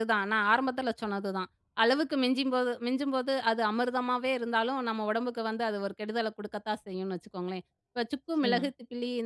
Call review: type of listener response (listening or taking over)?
listening